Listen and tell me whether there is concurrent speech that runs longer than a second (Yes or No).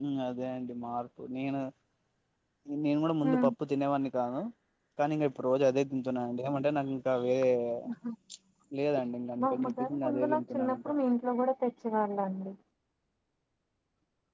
Yes